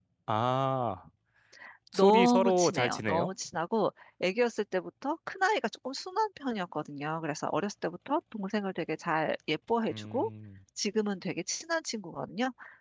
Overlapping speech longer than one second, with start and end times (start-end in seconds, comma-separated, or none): 1.9-3.3